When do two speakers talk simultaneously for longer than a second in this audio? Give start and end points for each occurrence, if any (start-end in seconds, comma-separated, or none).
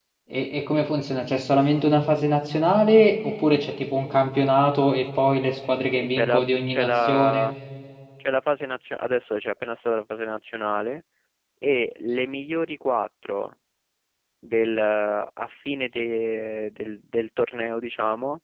6.0-7.5